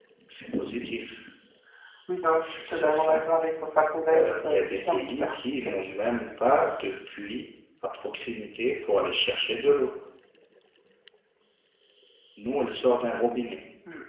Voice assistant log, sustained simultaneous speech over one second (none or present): present